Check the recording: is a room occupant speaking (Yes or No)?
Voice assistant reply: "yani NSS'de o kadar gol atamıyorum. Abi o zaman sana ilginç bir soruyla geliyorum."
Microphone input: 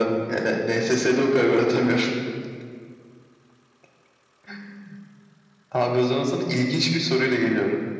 No